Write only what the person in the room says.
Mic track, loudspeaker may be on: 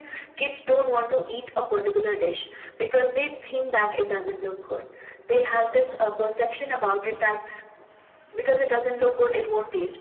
none

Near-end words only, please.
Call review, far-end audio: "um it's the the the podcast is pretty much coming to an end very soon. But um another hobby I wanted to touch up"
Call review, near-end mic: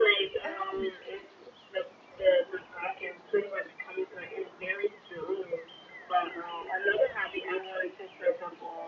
Oh,

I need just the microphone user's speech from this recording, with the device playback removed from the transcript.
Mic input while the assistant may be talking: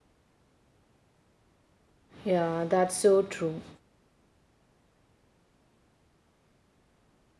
Yeah, that's so true.

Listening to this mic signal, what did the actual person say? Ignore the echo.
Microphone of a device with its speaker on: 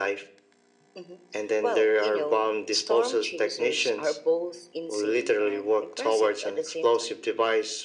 none

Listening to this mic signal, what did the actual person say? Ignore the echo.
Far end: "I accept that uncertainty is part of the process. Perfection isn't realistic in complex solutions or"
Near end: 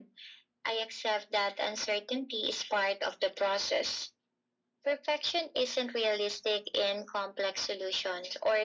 none

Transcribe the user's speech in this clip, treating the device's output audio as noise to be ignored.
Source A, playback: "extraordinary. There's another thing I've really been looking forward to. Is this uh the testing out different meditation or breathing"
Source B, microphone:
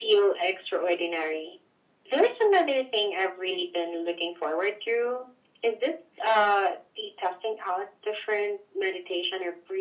none

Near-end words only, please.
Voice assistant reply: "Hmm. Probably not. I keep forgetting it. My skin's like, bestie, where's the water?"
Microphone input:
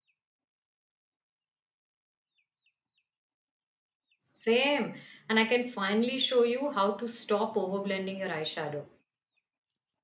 Same. And I can finally show you how to stop overblending your eyeshadow.

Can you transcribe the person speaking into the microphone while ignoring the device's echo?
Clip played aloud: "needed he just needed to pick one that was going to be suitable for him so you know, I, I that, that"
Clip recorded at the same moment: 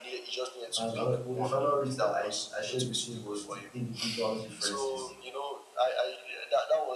And ano- well, the final risk that I, I shared with him was the individual differences

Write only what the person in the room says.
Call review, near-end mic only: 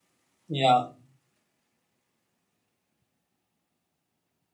yeah,

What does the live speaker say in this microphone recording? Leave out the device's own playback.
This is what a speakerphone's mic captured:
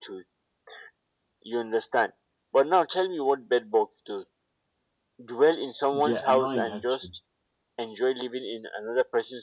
they're annoying actually

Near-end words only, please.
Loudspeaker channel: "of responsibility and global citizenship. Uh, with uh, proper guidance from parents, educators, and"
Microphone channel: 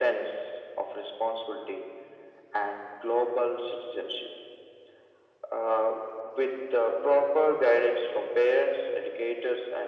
none

